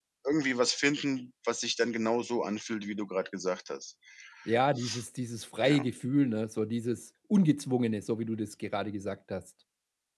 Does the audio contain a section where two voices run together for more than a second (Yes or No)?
No